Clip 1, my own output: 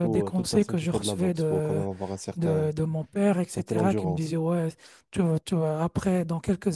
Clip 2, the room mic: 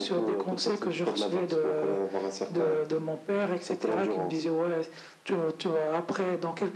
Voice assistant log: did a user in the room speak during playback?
No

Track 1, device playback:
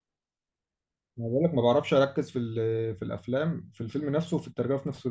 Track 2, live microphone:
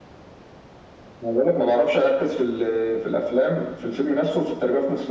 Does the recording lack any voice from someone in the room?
Yes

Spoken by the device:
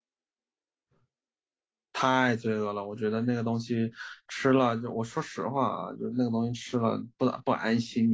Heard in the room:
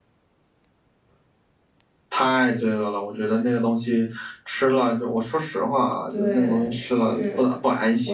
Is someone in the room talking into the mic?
Yes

